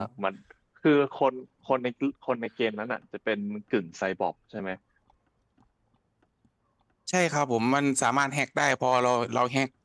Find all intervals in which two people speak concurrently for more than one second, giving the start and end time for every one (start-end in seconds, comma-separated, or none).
none